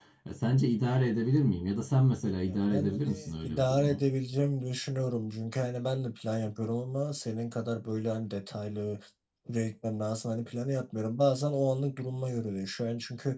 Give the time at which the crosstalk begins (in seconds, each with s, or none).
2.6 s